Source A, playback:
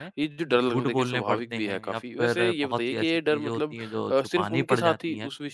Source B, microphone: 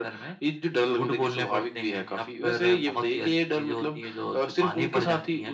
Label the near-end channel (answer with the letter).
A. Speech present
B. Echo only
B